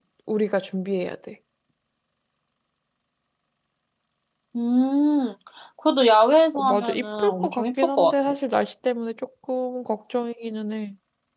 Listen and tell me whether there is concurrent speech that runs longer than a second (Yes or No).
Yes